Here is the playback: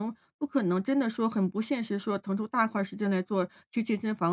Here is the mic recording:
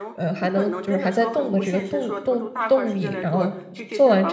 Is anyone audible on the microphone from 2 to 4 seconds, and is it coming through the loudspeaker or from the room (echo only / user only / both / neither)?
both